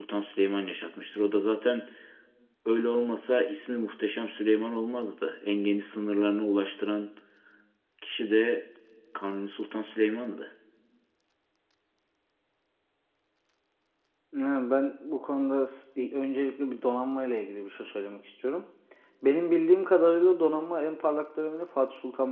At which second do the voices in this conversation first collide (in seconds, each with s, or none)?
none